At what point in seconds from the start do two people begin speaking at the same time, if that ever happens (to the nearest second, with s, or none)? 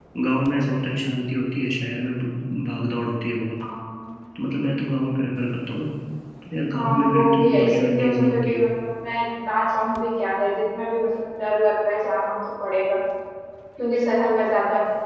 7 s